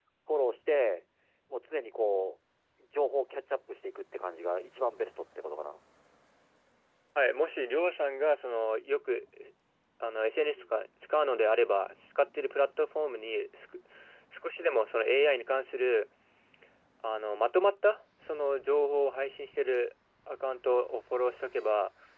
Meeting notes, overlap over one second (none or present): none